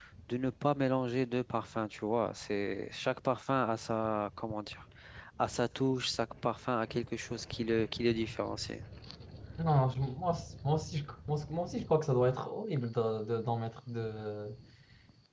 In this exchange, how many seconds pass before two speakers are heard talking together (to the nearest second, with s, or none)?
none